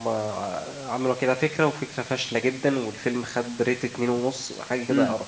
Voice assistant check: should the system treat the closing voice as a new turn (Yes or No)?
Yes